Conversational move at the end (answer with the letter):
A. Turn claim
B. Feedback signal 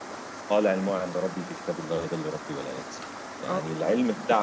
B